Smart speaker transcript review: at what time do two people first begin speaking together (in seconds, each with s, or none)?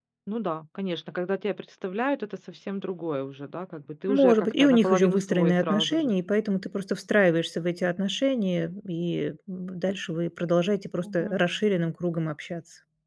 4.1 s